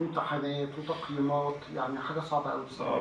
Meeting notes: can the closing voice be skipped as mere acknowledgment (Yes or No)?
No